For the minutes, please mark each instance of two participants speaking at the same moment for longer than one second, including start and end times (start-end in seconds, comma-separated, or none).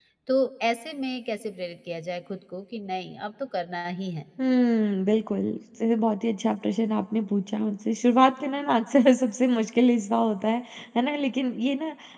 none